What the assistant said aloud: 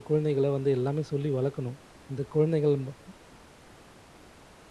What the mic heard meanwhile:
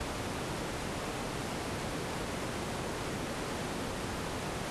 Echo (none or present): none